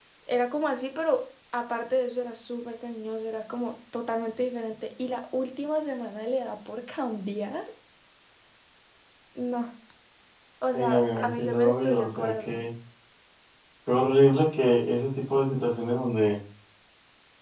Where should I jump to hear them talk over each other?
11 s

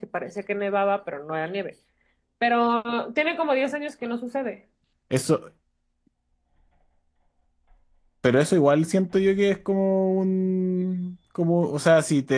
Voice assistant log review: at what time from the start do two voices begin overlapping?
none

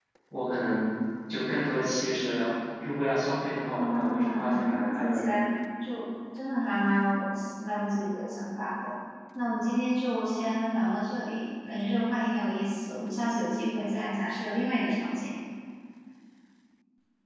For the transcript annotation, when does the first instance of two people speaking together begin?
4 s

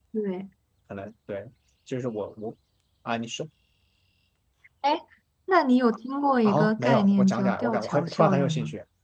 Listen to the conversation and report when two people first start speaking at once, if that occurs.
6 s

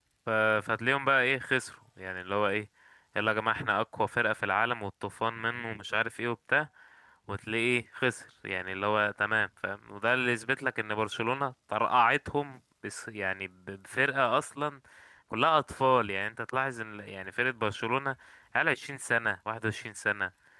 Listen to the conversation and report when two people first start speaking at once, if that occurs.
none

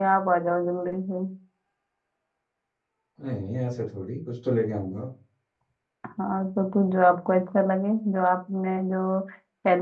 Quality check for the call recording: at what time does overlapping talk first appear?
none

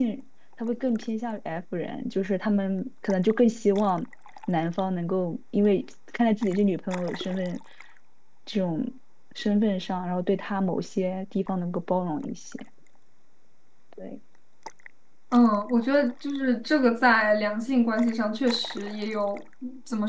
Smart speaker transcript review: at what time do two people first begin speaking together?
none

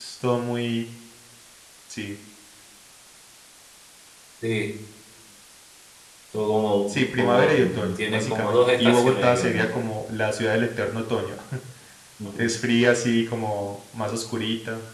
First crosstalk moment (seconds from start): 7 s

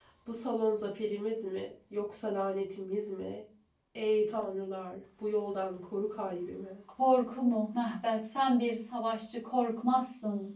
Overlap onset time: none

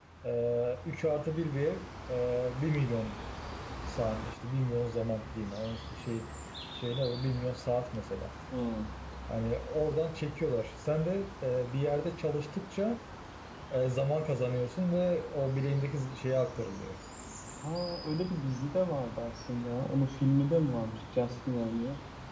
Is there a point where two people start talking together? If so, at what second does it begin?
none

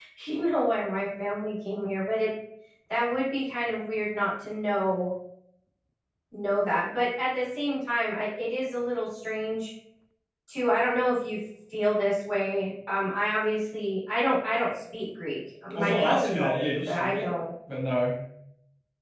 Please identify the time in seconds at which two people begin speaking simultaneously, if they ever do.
16 s

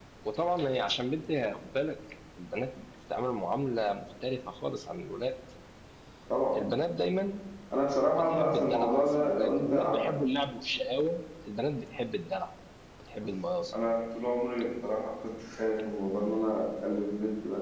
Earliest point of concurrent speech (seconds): 8 s

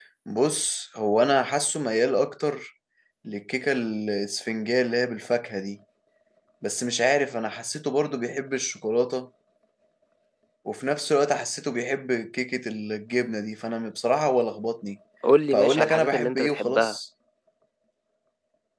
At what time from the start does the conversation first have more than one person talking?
16 s

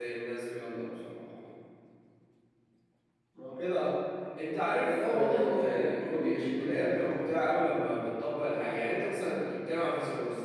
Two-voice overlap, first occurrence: 5 s

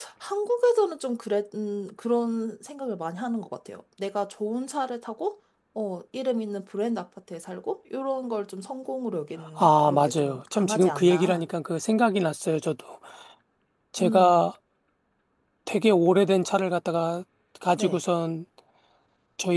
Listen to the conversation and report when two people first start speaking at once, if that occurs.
10 s

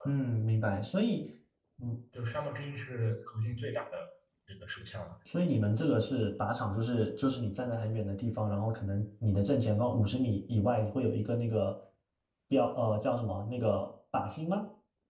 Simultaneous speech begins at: none

